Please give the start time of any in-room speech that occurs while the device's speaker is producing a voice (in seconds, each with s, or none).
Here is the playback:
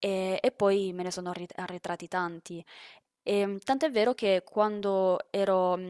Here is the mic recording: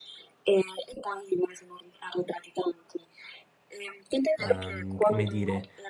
4.4 s